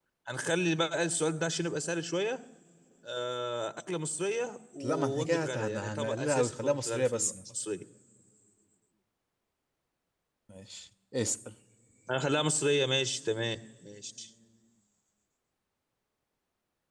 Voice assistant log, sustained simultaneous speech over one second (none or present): present